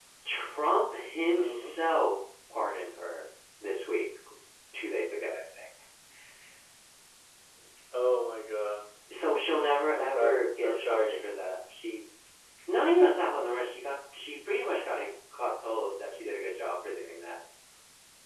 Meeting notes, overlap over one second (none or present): present